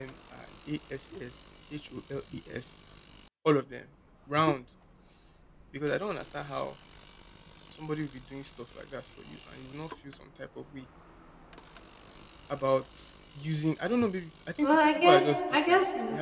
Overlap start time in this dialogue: 14.6 s

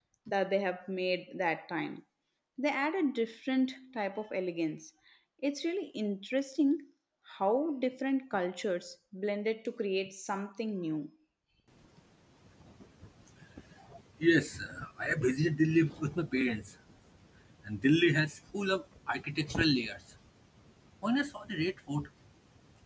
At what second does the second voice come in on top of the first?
none

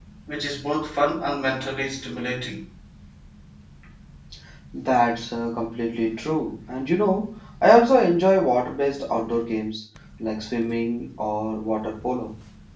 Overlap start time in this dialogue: none

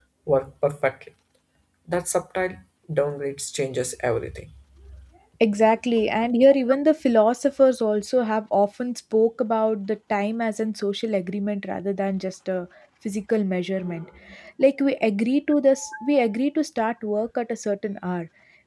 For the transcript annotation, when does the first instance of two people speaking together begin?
none

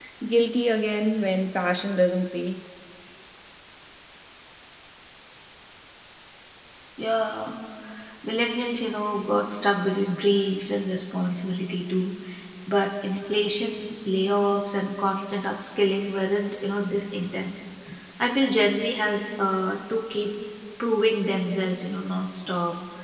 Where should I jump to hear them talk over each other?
none

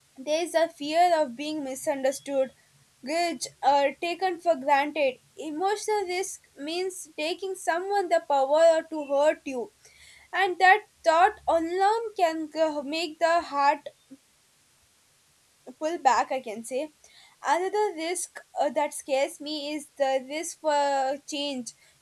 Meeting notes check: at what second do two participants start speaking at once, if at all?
none

